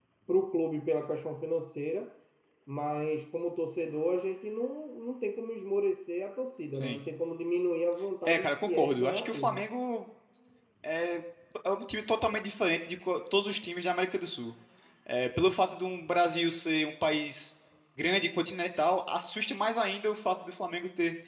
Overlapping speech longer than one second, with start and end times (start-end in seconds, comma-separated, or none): 8.3-9.6